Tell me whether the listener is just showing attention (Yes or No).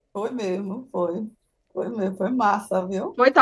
No